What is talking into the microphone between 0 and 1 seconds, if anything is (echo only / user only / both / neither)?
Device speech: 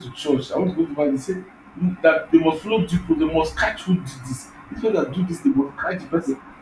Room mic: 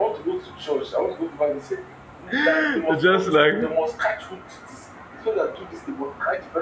echo only